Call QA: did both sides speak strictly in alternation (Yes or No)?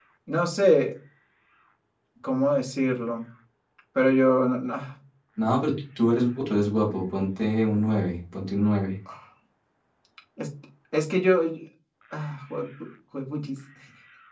Yes